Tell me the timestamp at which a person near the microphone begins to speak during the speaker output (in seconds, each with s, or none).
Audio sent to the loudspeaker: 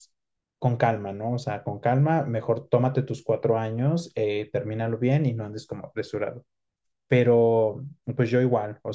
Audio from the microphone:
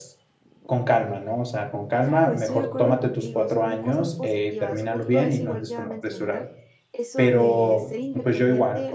2.0 s